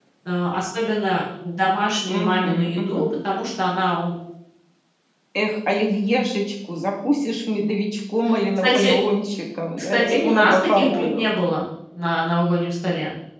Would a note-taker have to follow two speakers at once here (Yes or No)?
Yes